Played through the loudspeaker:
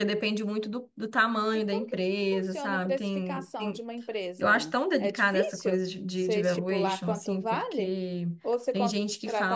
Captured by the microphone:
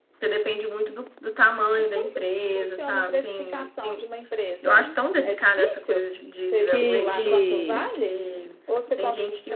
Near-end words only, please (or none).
que